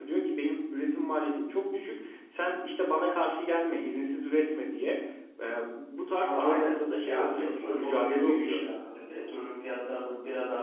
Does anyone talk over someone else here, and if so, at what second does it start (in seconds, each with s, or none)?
6.2 s